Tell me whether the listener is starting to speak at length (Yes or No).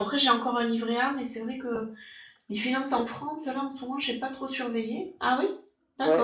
Yes